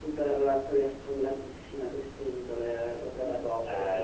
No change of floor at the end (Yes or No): No